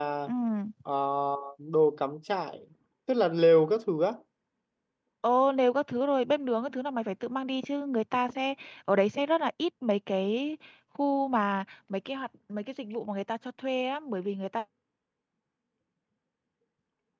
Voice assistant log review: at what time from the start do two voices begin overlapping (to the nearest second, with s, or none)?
none